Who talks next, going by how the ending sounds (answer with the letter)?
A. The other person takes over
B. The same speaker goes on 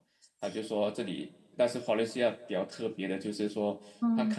B